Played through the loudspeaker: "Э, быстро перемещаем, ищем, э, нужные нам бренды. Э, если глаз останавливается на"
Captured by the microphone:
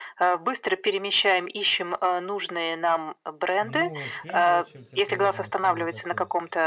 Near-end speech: present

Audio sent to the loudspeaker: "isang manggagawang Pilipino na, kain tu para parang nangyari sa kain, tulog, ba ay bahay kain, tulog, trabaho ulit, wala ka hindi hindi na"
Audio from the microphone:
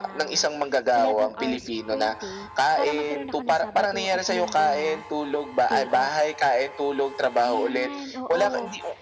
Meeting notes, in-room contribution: present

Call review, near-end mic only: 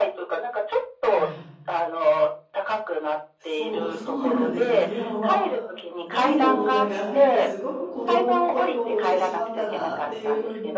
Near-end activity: present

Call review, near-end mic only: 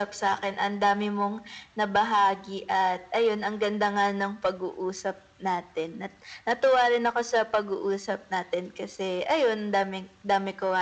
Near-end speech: none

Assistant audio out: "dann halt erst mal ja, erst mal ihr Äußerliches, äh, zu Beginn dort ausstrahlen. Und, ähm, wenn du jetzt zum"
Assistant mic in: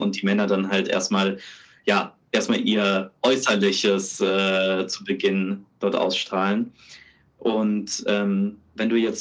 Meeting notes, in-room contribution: none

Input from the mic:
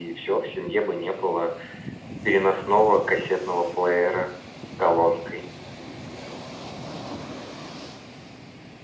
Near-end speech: none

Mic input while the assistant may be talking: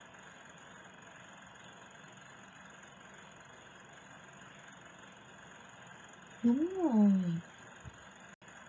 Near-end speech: present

